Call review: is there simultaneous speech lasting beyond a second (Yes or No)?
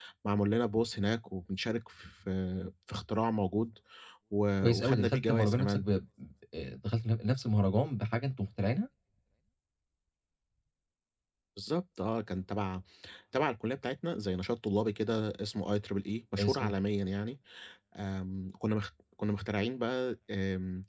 Yes